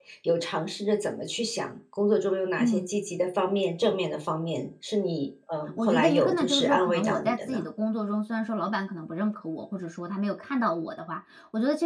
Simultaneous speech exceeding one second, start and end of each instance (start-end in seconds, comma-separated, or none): 5.9-7.6